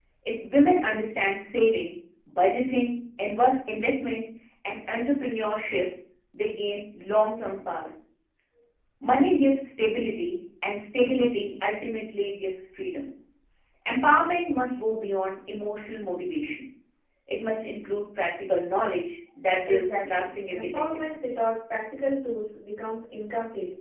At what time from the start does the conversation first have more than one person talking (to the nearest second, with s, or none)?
20 s